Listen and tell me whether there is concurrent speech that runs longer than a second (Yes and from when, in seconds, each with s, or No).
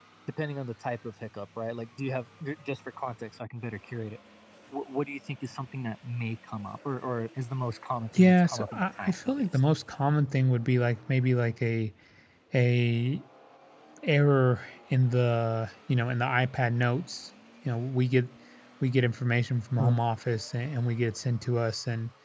Yes, from 8.1 s